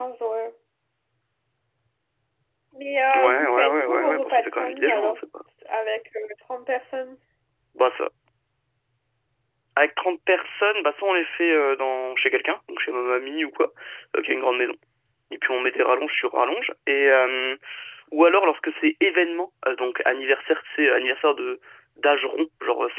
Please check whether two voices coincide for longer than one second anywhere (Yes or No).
Yes